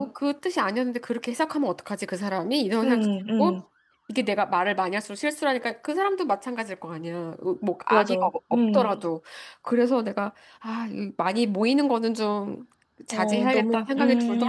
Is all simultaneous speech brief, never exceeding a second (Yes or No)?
No